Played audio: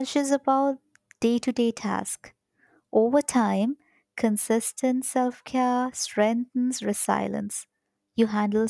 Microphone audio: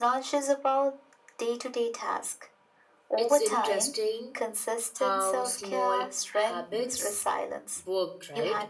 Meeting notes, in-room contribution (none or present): present